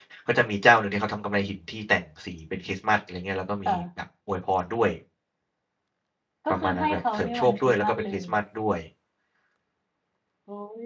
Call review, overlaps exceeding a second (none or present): present